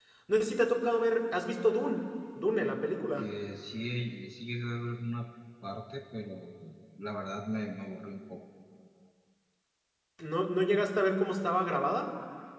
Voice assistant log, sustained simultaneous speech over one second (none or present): none